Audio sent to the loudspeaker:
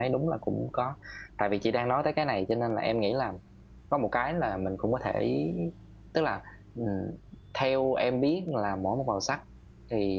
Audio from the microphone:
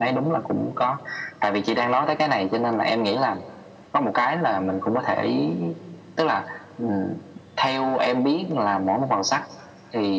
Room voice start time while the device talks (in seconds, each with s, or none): none